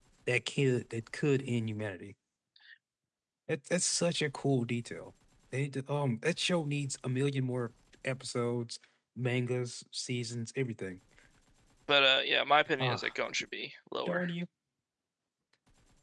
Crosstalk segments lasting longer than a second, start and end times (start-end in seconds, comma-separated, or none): none